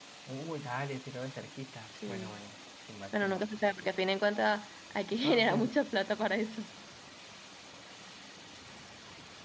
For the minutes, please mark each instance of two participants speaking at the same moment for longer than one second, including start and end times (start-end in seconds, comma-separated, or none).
none